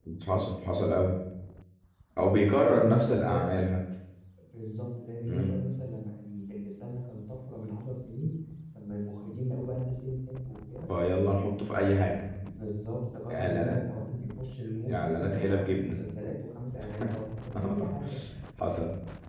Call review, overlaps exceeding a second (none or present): present